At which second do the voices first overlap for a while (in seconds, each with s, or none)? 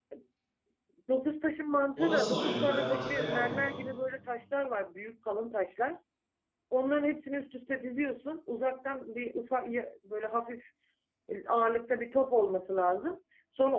2.0 s